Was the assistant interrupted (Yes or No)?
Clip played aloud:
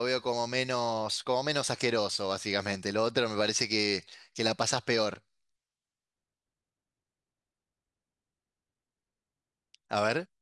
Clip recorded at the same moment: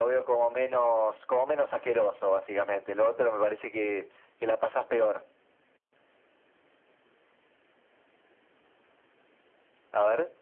No